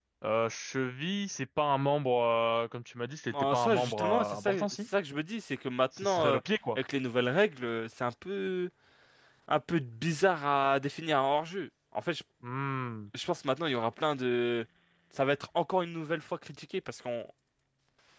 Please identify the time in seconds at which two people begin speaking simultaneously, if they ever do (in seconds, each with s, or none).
3.3 s